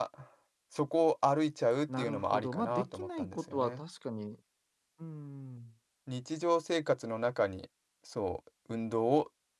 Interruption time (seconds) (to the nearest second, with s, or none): 2 s